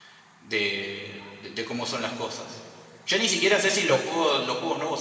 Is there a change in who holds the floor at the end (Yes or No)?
No